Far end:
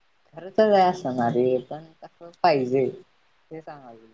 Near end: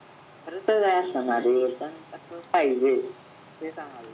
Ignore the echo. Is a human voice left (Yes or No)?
No